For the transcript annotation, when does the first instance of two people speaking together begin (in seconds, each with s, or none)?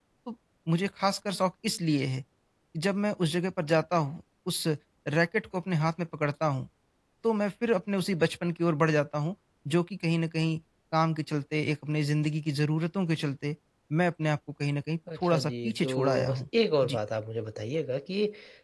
15.1 s